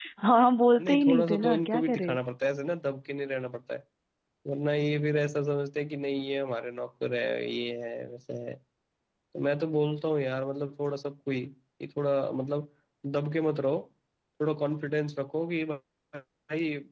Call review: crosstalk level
present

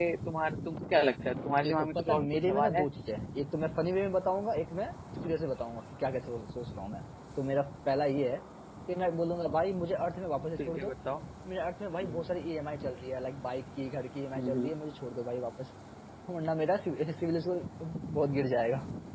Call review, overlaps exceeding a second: present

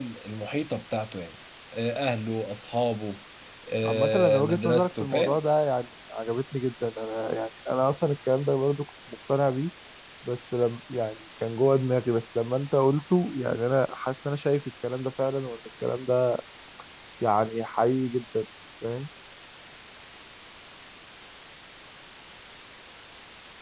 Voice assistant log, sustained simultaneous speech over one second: present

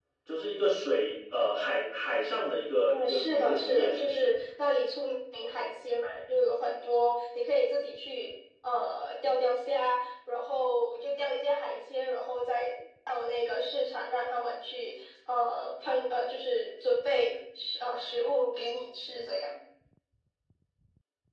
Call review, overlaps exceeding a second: present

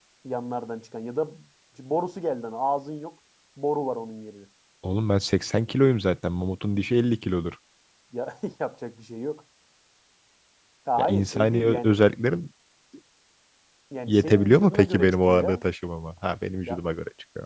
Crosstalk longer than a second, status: present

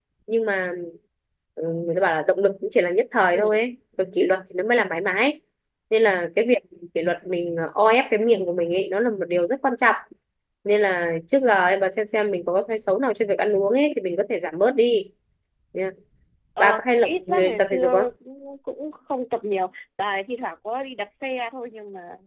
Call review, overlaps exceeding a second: present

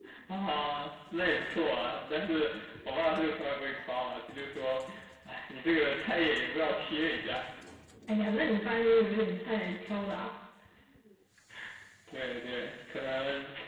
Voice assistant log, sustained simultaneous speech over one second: none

